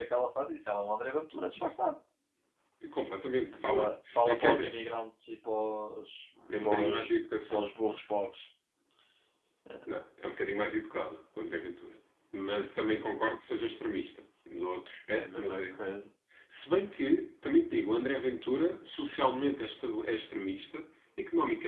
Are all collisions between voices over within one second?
No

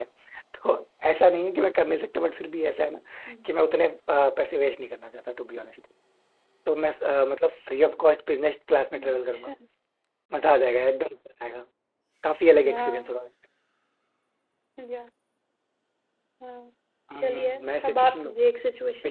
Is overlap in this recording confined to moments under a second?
No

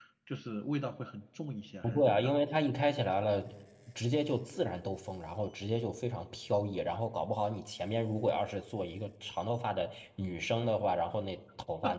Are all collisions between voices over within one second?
Yes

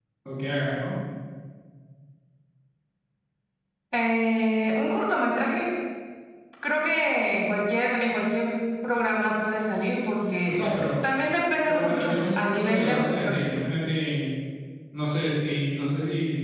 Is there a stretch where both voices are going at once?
Yes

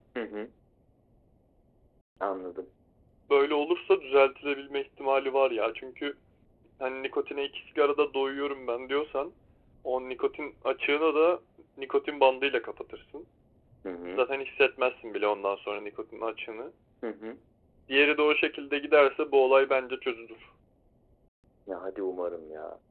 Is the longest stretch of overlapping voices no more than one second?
Yes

